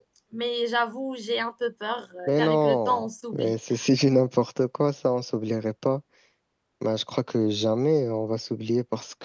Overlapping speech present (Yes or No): Yes